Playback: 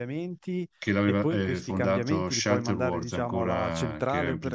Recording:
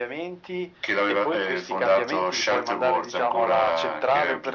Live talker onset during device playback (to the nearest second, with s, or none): none